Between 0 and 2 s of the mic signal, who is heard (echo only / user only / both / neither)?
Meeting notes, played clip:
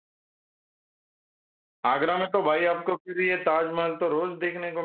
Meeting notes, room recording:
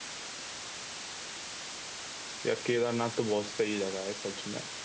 neither